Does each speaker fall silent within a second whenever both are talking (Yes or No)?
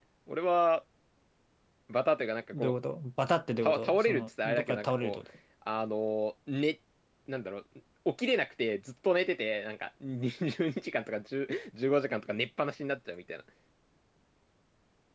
No